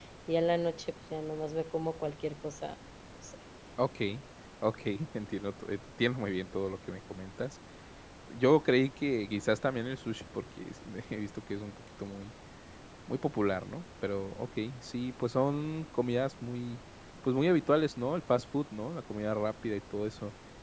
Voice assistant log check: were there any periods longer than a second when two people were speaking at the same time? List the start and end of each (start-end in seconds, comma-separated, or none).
none